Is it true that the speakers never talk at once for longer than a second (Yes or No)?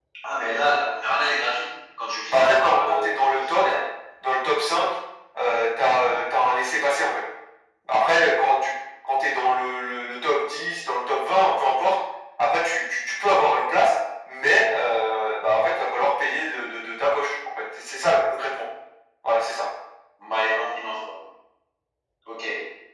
No